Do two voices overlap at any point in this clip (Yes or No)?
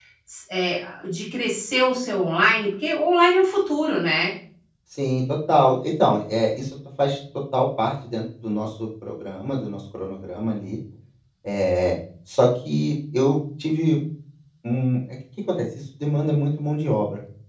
No